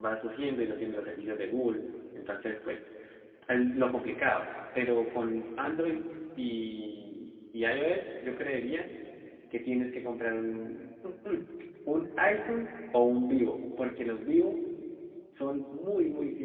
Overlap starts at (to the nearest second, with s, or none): none